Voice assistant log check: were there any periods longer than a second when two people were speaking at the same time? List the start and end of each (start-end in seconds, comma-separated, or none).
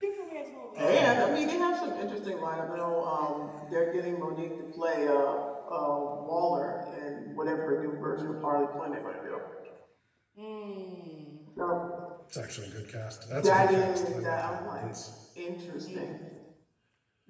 13.3-14.9